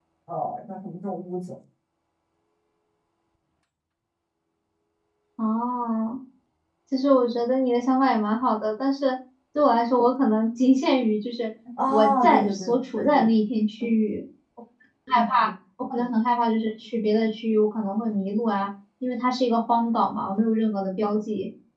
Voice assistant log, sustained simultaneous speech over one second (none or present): present